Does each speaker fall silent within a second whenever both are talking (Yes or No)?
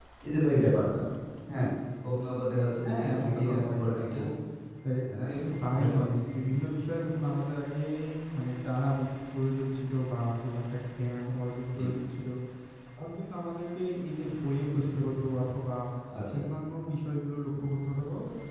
No